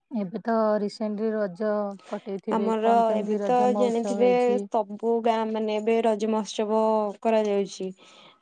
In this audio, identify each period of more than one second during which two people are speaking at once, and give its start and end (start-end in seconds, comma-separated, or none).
2.5-4.6